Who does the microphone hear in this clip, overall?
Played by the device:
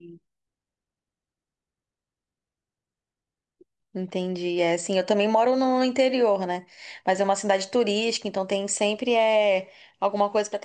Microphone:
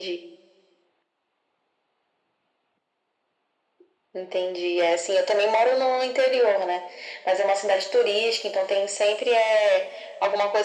echo only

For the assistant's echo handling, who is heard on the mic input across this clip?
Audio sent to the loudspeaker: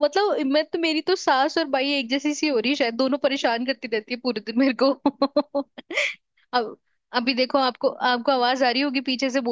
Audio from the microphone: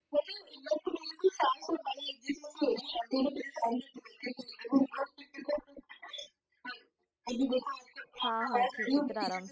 both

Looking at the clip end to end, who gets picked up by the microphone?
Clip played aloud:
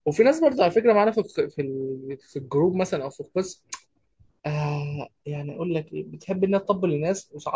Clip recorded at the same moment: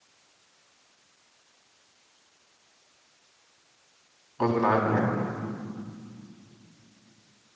user only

